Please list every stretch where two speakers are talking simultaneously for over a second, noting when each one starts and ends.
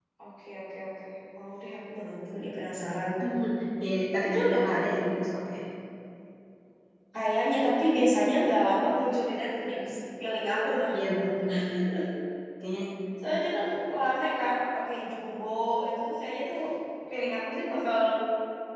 none

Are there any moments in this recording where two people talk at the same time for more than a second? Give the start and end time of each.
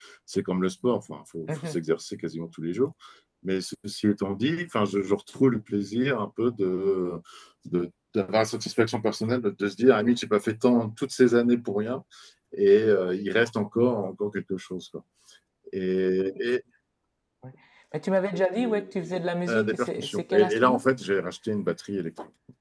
19.5-20.8

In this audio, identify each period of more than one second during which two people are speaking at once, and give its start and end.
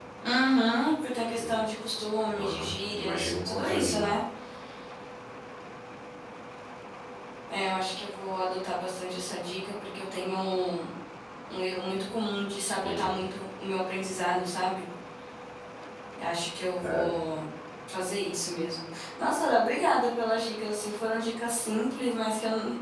2.4-4.1

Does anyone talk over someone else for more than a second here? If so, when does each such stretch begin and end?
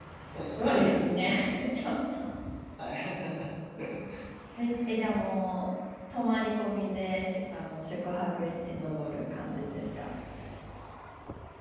none

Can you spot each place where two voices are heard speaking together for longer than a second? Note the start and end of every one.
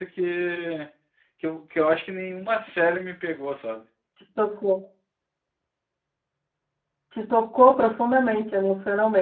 none

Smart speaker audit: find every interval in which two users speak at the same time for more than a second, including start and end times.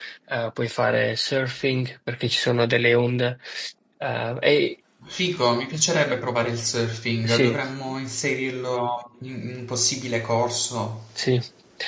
none

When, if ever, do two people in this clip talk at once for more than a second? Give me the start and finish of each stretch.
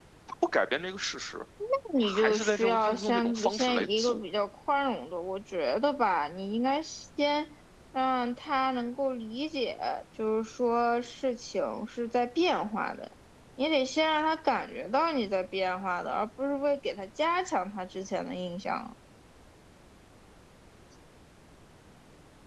2.0-4.2

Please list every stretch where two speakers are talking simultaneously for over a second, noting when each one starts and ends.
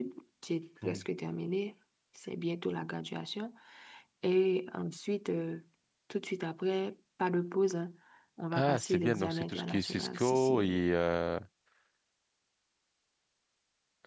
8.5-10.8

